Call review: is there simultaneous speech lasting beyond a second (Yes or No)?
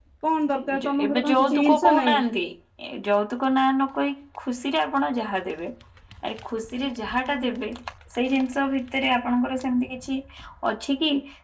Yes